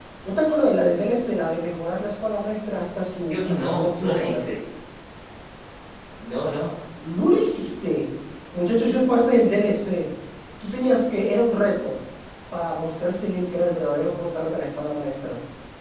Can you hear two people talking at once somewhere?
Yes, from 3.2 s

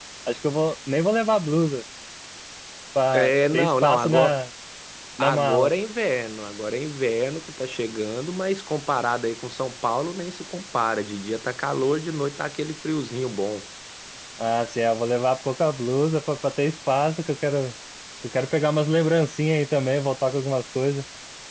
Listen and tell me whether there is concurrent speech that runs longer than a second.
Yes, from 3.1 s

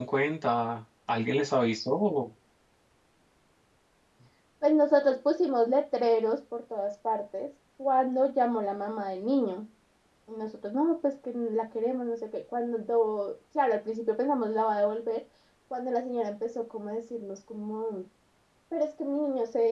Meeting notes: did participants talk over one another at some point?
No

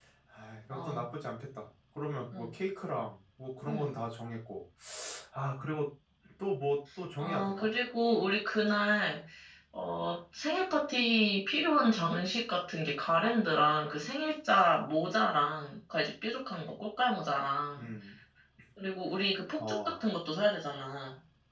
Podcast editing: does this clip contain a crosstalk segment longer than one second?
No

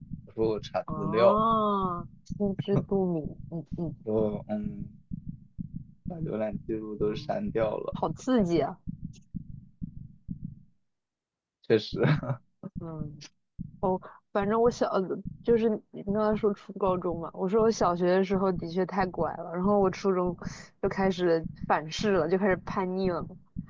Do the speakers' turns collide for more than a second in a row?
No

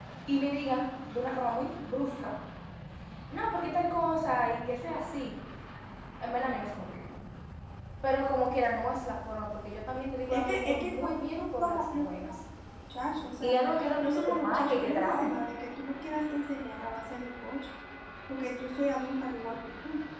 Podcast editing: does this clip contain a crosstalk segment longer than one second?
Yes, from 10.3 s

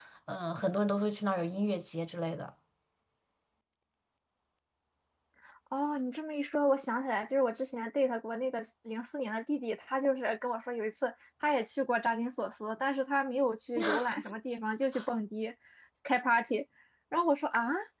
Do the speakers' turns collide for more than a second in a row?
No

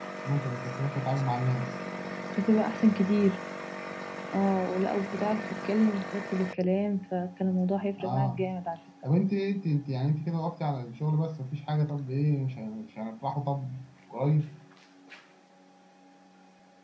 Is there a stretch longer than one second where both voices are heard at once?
No

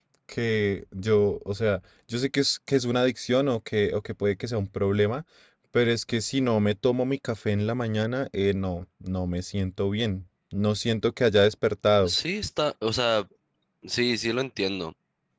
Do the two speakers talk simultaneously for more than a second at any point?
No

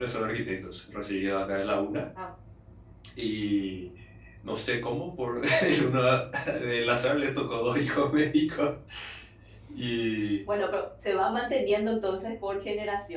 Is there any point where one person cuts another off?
No

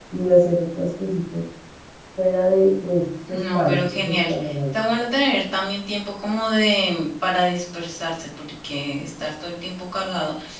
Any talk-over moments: Yes, from 3.3 s

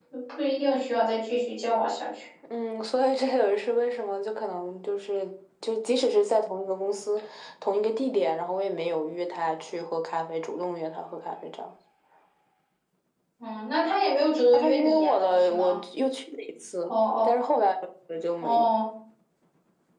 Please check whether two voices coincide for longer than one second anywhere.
Yes, from 14.5 s

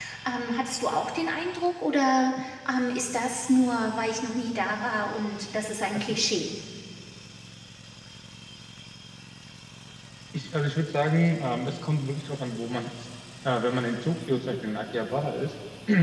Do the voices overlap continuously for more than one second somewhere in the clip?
No

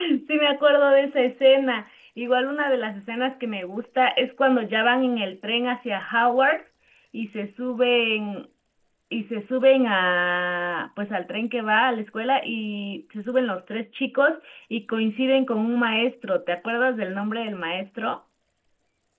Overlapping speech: No

